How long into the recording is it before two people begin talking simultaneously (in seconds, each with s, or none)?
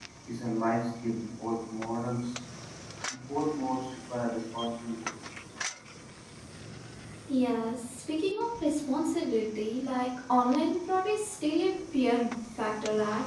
none